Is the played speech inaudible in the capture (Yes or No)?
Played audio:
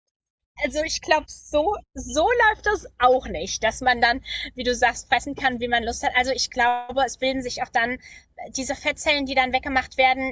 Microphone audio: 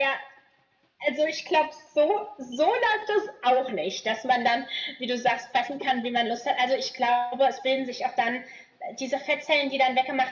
No